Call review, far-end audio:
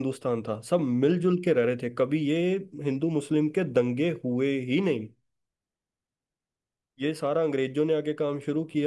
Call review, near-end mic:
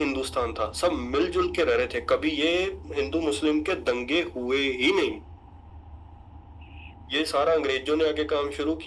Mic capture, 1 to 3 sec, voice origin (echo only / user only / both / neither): echo only